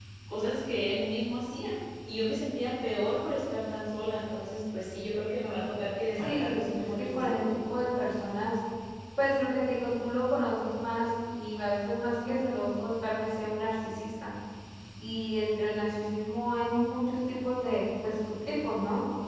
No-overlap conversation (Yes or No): No